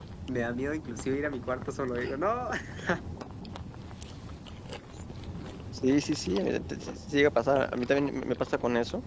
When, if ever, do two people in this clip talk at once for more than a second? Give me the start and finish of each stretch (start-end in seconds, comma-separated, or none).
none